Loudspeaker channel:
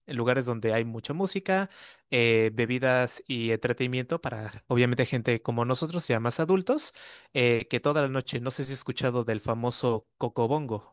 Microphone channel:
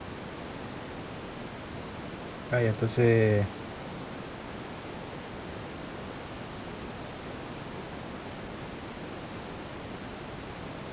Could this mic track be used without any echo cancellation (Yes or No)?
Yes